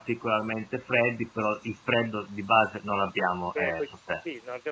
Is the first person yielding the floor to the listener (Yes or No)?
Yes